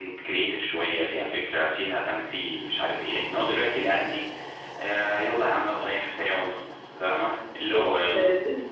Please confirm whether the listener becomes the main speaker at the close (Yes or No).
Yes